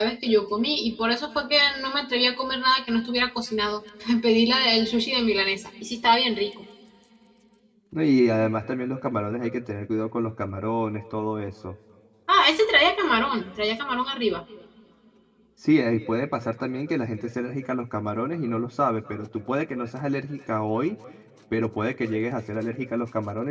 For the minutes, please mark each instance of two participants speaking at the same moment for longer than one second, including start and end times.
none

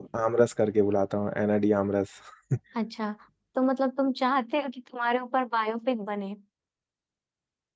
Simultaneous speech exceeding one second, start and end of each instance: none

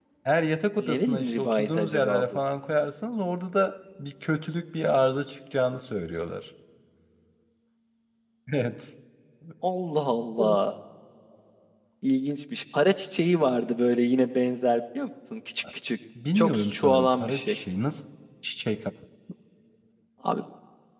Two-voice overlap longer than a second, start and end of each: 0.8-2.2, 16.4-17.6

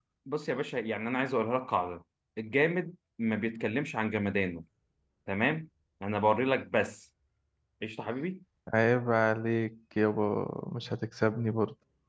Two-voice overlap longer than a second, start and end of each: none

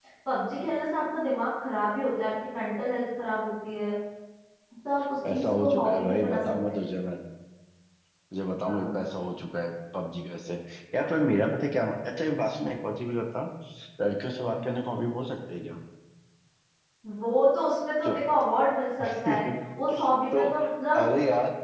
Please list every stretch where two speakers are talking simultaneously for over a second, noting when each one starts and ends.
5.3-6.8

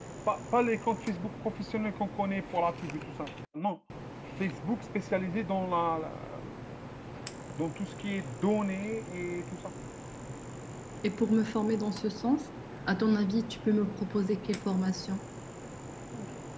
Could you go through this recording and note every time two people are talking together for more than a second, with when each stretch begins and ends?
none

